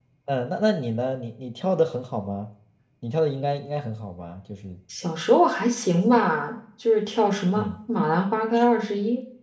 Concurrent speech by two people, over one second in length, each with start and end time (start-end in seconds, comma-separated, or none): none